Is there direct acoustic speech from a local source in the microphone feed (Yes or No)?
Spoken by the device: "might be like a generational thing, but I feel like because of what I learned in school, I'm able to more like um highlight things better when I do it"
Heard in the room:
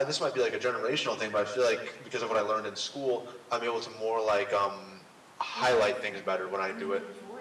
Yes